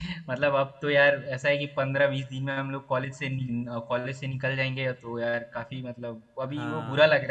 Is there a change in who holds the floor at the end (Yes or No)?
No